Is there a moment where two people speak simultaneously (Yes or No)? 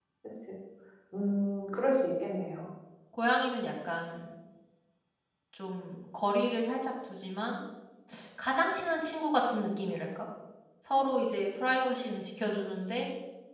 No